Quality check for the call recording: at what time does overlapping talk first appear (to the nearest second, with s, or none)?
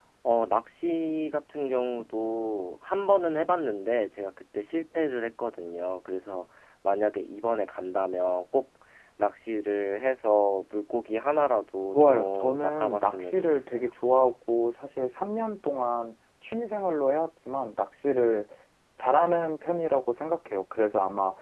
12 s